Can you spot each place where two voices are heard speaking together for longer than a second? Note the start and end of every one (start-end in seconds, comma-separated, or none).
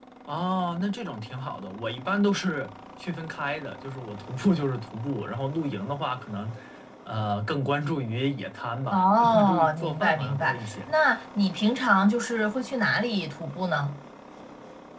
8.9-10.7